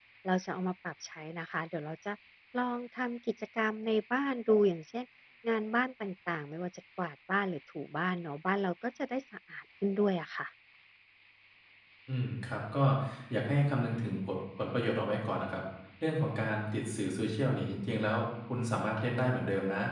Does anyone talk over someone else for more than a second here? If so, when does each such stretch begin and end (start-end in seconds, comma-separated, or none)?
none